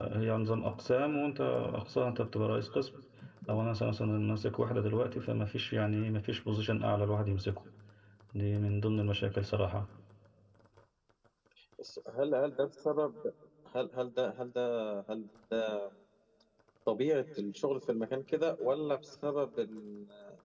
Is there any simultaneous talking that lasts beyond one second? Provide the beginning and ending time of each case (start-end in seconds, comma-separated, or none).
none